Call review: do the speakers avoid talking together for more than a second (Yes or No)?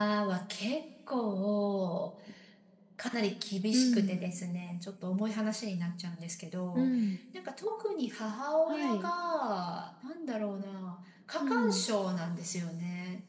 Yes